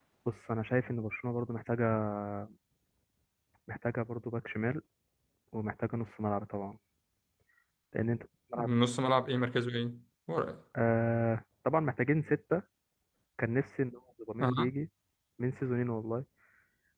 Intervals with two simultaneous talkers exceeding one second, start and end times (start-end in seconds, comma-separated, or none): none